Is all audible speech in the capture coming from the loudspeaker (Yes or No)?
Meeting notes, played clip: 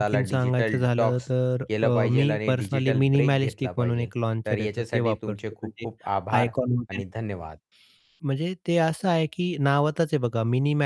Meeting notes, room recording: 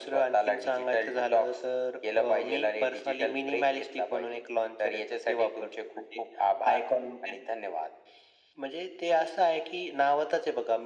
Yes